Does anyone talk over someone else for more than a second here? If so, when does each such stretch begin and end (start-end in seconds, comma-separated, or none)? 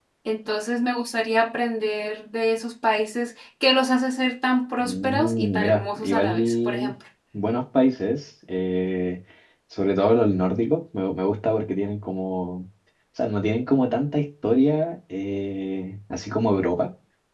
4.8-6.9